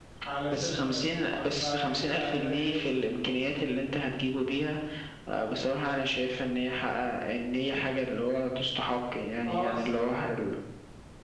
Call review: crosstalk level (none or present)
present